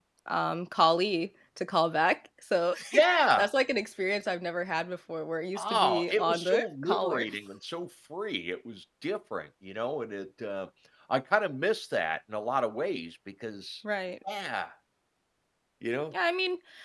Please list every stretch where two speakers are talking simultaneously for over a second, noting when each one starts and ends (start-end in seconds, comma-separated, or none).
5.6-7.2